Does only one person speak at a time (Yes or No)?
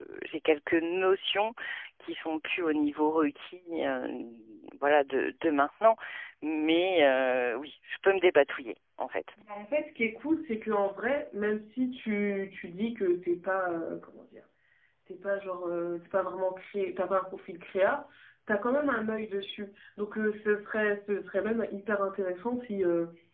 Yes